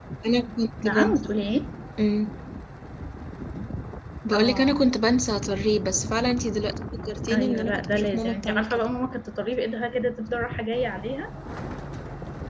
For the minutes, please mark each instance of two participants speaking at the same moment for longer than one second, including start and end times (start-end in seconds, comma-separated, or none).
7.3-8.9